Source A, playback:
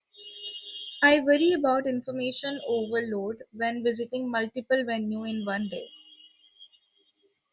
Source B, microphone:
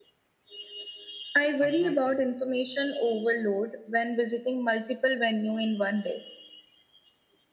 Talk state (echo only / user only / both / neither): both